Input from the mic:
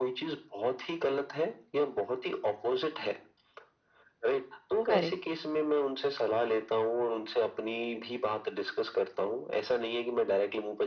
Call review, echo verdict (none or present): present